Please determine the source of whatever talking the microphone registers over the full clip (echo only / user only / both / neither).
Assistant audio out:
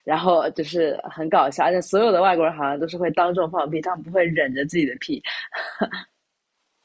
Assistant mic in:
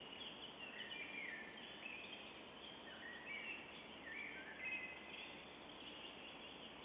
neither